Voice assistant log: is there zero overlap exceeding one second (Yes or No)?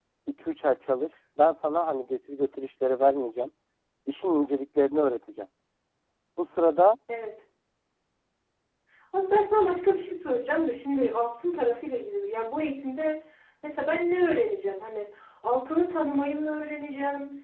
Yes